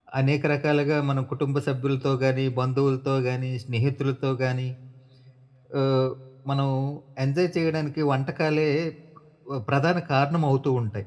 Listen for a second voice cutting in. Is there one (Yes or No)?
No